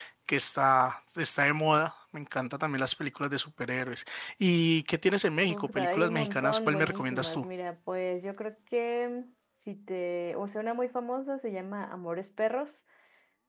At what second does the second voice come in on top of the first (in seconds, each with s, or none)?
5.5 s